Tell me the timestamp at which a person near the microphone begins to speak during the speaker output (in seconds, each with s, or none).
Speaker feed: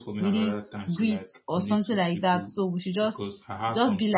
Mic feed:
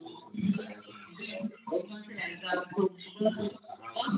none